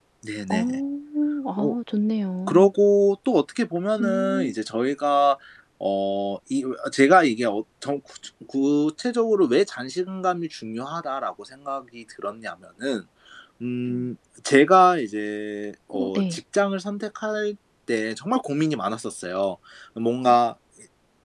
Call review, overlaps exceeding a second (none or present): none